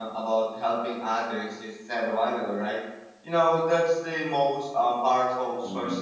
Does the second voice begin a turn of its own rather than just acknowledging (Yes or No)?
No